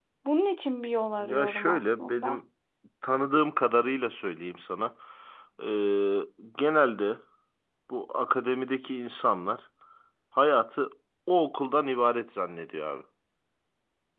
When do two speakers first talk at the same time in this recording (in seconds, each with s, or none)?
1.2 s